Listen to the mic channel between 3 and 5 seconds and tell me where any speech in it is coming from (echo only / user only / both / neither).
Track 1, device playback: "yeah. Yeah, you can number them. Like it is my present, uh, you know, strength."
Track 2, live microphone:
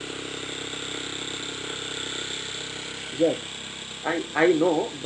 user only